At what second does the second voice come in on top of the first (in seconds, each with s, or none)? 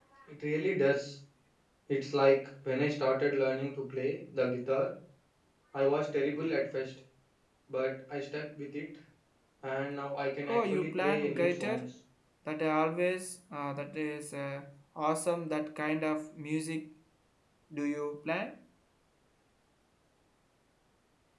10.5 s